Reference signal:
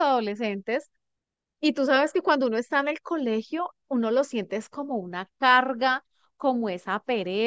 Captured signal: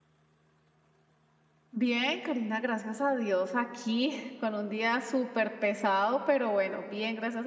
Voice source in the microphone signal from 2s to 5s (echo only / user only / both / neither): user only